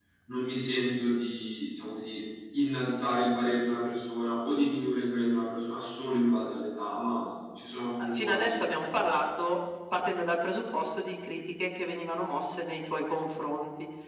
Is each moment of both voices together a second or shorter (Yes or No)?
No